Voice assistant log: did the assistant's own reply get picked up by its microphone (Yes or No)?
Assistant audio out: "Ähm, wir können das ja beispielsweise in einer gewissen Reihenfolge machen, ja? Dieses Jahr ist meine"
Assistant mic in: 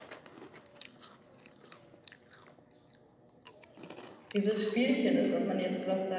No